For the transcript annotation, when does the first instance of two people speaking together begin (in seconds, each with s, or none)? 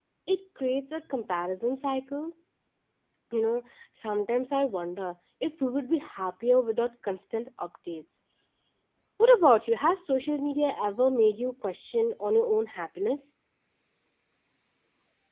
none